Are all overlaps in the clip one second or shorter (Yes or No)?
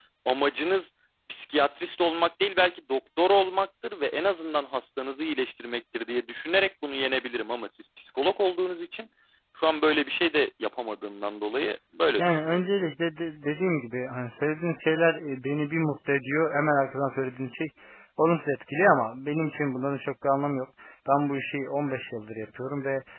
Yes